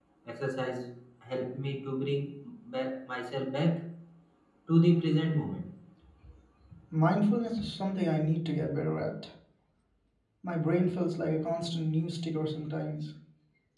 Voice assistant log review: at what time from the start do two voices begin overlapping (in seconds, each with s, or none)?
none